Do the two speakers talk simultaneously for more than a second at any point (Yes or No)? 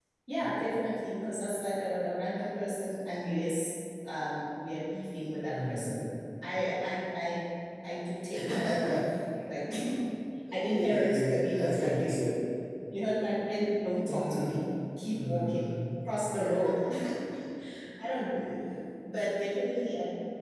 Yes